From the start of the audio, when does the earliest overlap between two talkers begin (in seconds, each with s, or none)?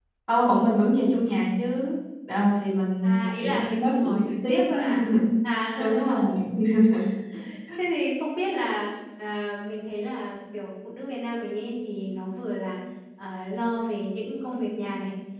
3.0 s